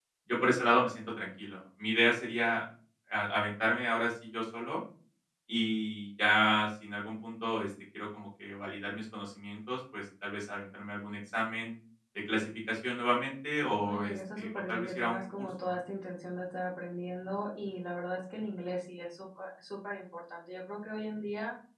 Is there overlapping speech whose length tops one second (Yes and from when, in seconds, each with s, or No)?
Yes, from 13.8 s